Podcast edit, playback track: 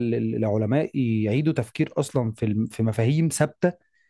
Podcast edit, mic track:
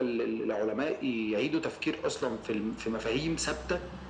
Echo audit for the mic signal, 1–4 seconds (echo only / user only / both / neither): echo only